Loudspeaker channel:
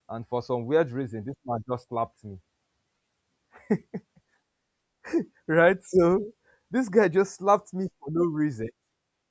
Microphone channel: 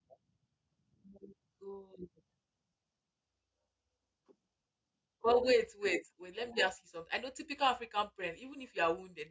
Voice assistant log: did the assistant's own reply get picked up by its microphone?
No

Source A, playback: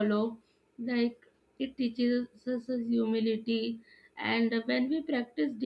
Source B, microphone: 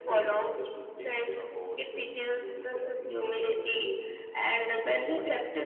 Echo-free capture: No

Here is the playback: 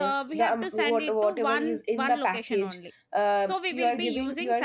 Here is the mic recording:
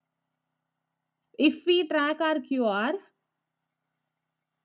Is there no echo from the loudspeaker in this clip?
Yes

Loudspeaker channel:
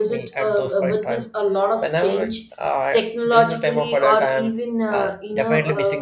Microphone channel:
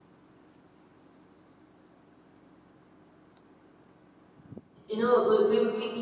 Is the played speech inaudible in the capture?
Yes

